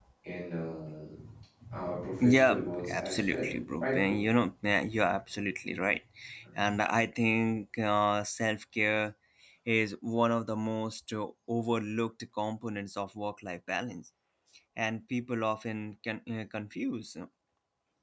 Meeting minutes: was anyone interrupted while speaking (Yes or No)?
Yes